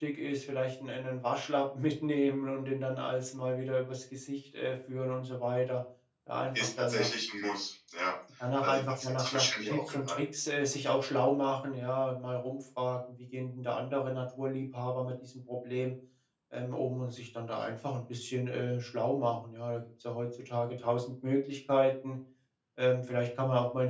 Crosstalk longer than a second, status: present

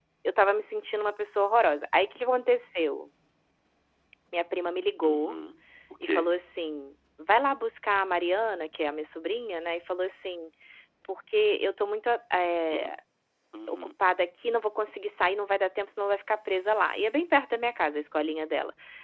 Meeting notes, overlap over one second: none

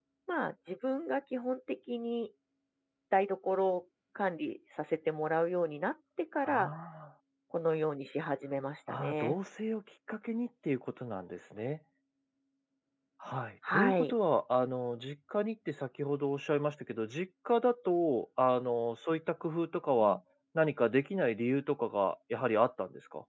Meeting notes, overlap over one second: none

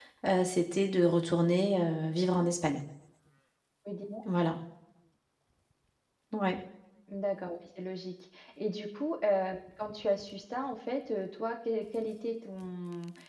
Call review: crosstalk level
none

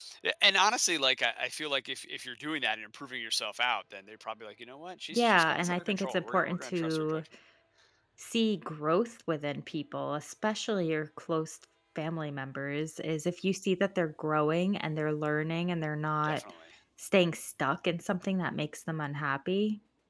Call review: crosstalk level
present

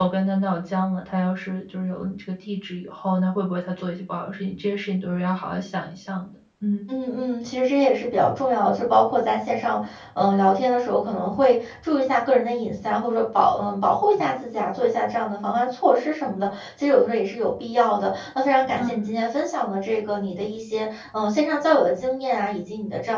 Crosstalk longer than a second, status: none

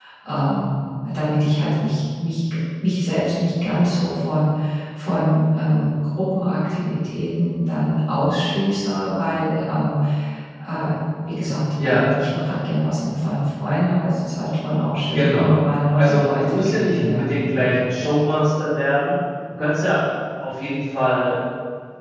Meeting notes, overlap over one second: present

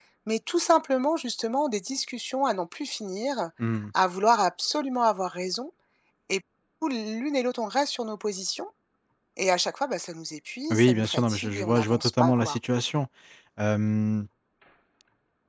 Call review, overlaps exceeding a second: present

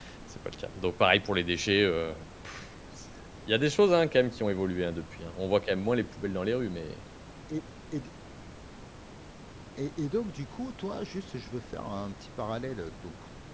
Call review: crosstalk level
none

